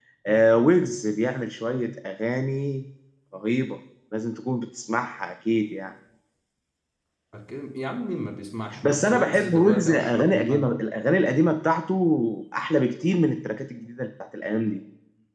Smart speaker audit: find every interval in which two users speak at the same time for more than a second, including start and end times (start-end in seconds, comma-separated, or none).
8.8-10.8